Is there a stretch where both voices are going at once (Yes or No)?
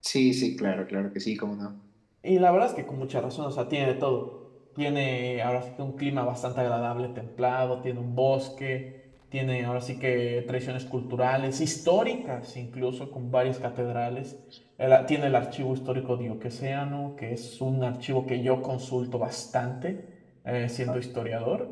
No